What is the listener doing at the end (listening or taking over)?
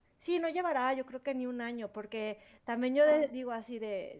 listening